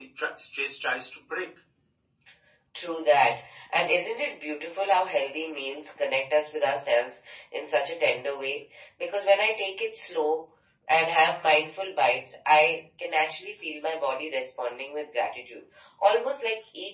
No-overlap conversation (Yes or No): Yes